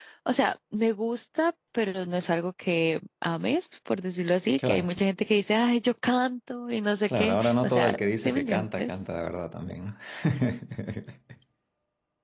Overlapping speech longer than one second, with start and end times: 7.1-8.9

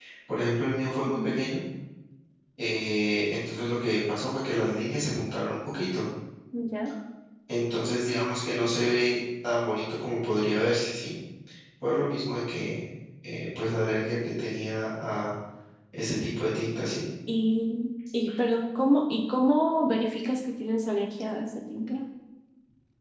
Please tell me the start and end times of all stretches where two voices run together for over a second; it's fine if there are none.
none

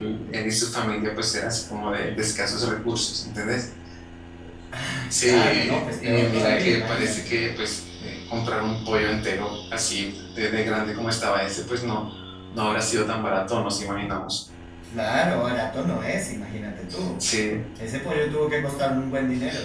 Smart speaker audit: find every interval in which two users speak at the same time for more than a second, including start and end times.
5.1-7.4

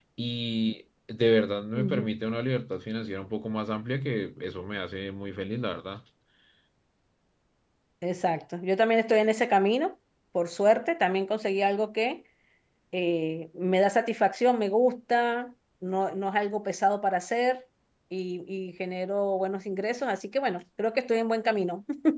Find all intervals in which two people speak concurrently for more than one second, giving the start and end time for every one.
none

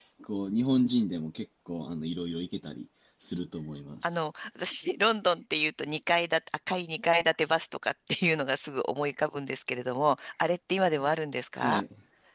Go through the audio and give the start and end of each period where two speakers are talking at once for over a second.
none

